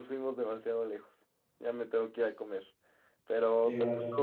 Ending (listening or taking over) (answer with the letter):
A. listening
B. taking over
A